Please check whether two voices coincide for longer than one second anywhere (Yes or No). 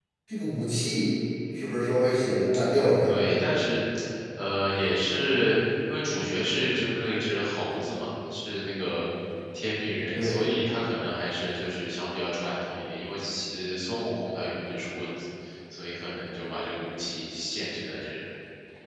No